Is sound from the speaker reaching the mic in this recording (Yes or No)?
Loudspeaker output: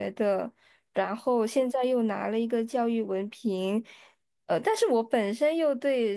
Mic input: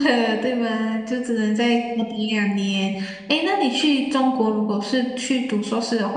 No